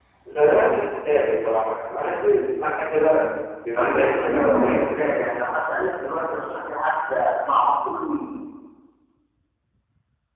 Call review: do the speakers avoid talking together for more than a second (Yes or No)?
No